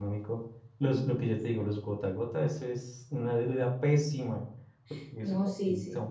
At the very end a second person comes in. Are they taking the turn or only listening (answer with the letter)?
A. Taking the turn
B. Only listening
A